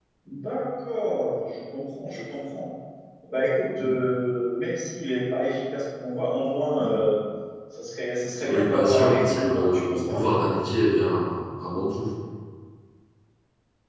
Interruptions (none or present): present